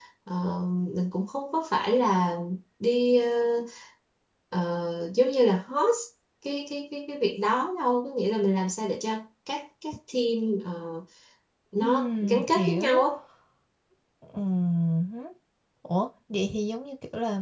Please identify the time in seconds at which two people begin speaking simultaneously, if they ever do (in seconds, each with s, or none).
11.8 s